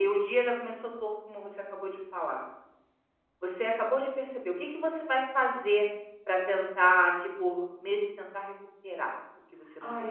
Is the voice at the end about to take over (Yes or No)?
Yes